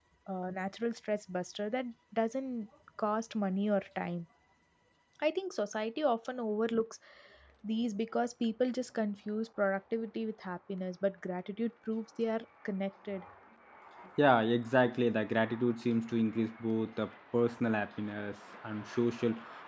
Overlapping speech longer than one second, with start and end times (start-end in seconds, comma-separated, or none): none